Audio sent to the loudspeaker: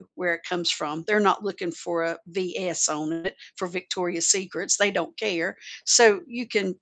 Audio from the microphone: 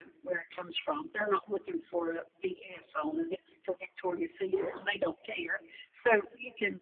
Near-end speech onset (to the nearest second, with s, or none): 4 s